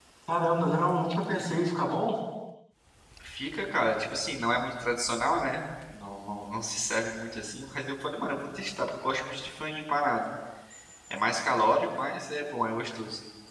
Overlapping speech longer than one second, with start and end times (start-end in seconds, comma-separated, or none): none